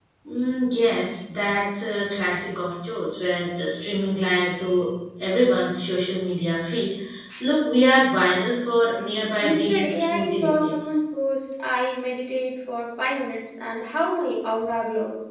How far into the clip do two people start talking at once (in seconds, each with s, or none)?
9.4 s